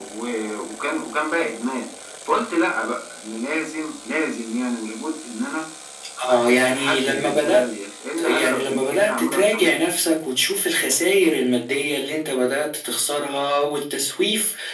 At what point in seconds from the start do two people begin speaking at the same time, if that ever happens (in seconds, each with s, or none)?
6.3 s